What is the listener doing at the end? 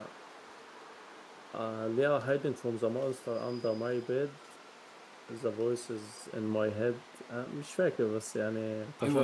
taking over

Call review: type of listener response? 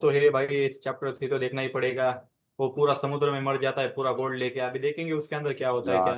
taking over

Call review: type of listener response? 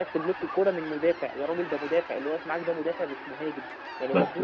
listening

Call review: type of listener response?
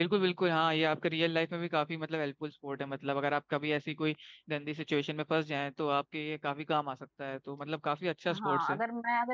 taking over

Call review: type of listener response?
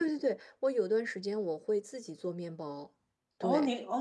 taking over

